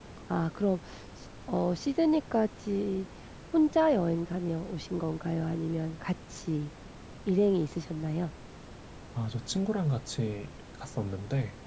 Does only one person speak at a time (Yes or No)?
Yes